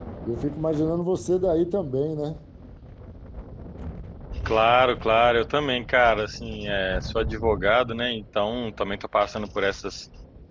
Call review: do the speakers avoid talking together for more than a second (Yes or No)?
Yes